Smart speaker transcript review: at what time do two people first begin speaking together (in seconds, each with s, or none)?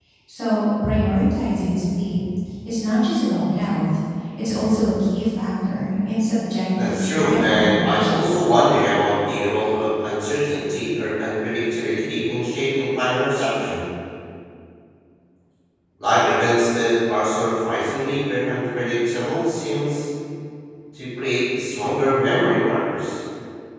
6.7 s